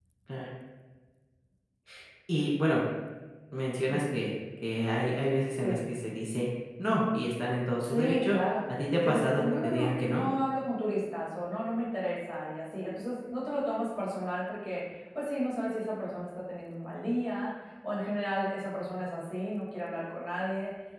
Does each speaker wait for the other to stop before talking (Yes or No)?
No